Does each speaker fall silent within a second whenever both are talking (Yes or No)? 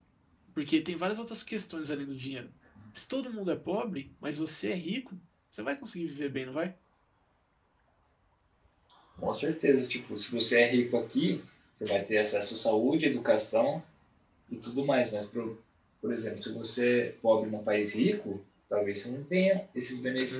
Yes